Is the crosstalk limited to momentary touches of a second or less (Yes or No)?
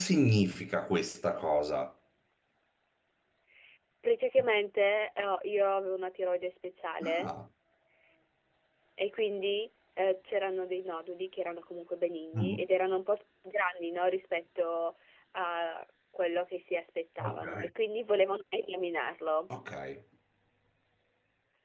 Yes